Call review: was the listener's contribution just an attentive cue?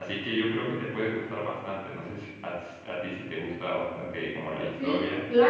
No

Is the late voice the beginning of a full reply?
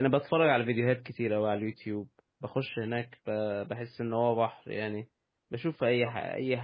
No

